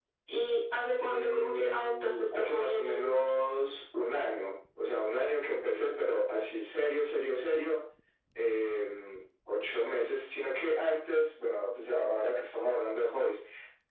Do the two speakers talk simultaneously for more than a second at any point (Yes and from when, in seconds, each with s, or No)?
Yes, from 1.0 s